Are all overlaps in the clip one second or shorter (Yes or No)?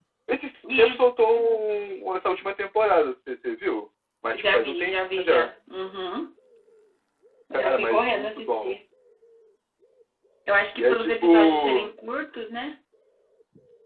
No